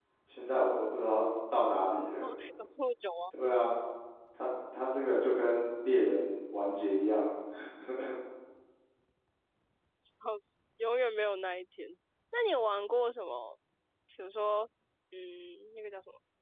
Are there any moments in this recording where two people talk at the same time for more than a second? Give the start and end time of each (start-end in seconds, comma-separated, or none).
none